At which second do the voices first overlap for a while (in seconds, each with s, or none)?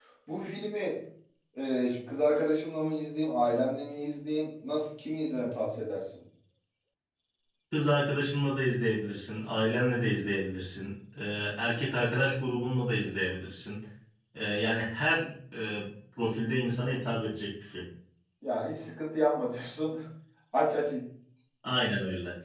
none